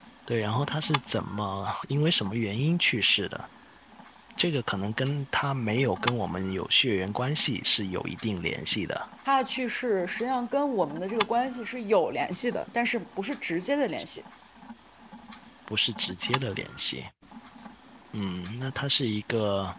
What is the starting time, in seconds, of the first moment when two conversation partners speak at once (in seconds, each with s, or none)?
none